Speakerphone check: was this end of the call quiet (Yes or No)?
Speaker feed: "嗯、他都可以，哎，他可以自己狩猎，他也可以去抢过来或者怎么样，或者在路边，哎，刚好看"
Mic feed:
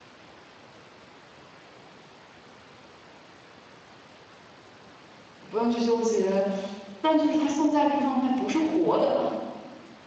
No